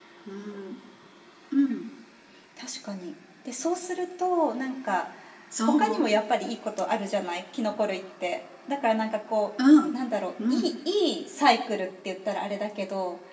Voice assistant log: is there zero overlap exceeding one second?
Yes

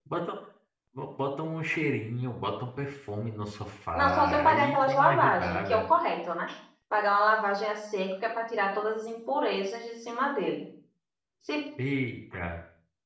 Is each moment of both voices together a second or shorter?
No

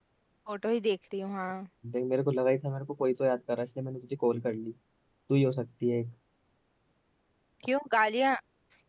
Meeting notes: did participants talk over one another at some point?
No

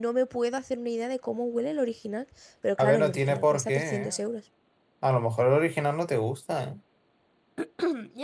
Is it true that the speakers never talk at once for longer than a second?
No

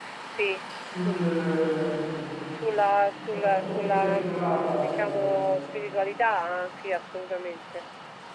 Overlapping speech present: Yes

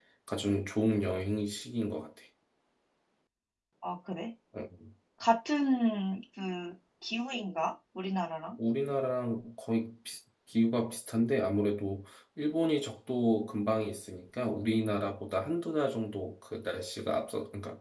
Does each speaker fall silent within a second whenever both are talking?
Yes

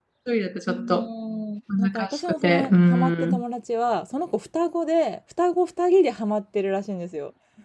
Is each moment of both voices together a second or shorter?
No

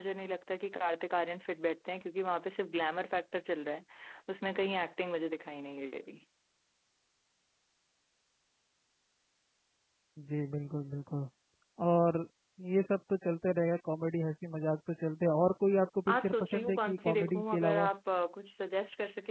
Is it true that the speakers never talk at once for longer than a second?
No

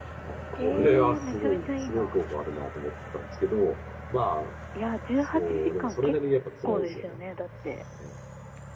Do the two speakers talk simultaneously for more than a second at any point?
Yes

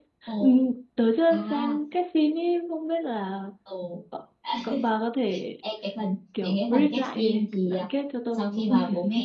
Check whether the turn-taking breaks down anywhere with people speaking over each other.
Yes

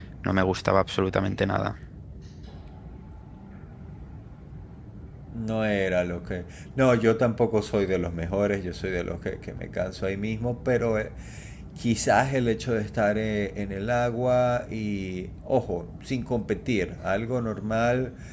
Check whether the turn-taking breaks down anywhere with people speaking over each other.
No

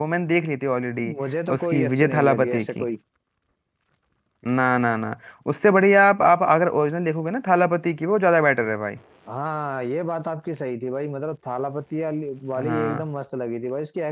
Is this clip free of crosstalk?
No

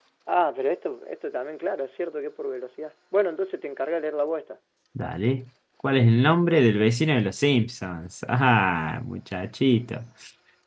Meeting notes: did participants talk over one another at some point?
No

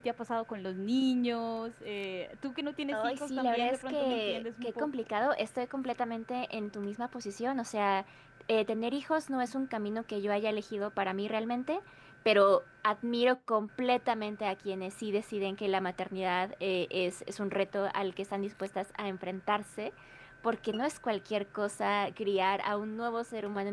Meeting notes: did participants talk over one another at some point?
Yes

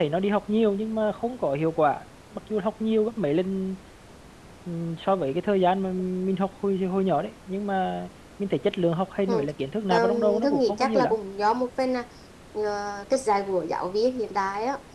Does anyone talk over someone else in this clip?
Yes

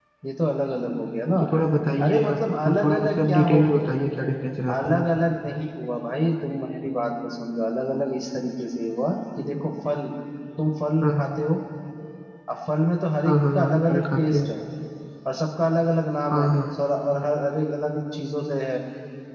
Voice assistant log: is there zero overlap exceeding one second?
No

